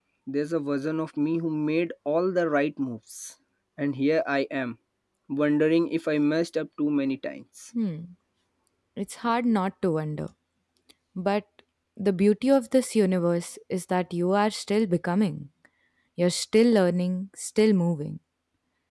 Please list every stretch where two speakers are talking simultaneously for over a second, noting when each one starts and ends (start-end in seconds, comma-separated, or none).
none